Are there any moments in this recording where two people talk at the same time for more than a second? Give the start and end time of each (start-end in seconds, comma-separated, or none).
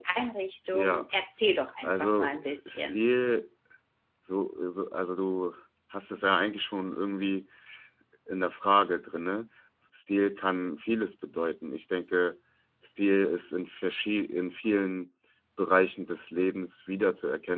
1.8-3.0